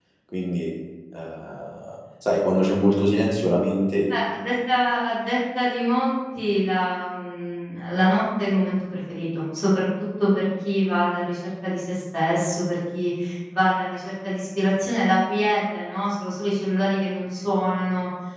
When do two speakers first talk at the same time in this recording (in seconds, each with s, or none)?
none